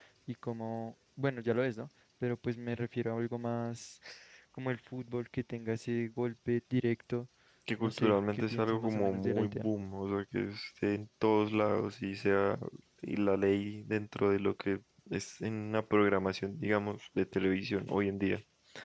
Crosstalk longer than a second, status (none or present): present